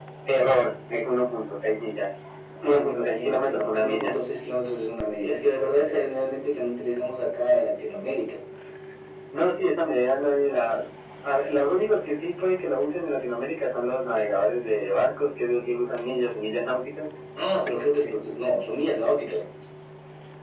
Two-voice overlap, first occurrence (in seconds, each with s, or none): 2.6 s